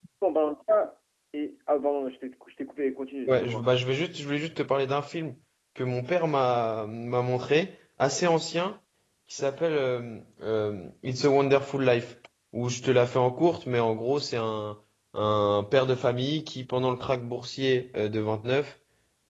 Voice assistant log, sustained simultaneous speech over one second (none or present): none